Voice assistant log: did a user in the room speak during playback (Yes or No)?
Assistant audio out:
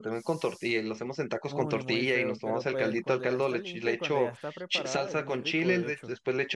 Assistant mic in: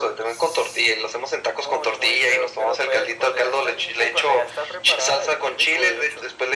No